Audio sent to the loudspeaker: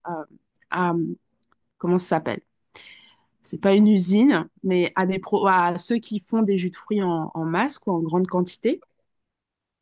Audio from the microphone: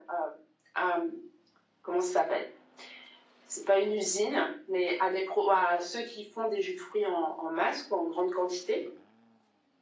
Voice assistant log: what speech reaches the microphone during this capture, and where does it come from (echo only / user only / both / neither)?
echo only